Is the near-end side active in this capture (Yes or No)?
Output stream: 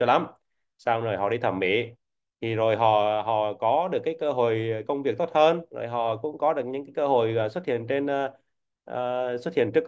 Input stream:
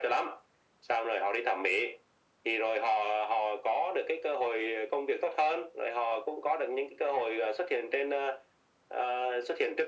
No